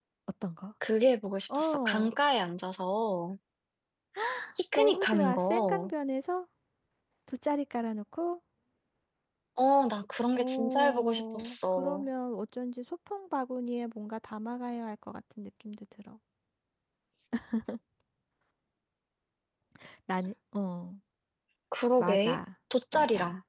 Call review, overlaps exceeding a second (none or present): present